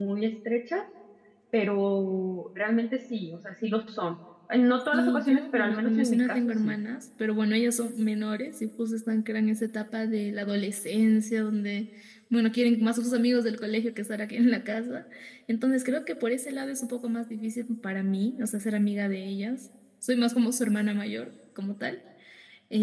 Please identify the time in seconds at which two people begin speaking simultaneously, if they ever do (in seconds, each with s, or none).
4.9 s